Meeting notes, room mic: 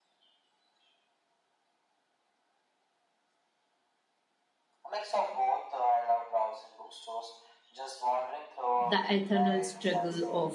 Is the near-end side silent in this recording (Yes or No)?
No